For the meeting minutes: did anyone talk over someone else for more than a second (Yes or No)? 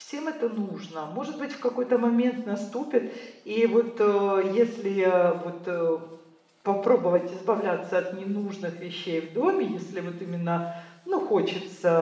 No